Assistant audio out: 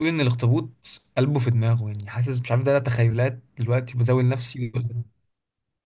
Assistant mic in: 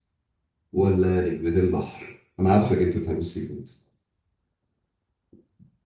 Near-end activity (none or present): present